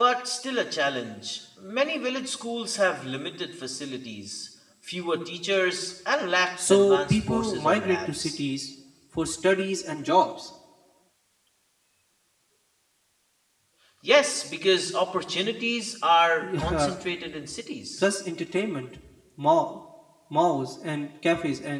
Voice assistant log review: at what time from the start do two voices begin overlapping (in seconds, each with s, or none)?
6.7 s